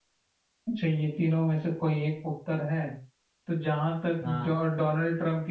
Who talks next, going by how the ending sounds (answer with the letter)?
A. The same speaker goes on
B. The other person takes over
A